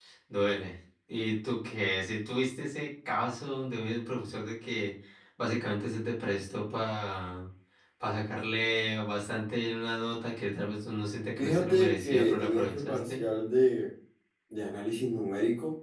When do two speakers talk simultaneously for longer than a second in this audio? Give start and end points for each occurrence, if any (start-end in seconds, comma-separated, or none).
11.4-13.2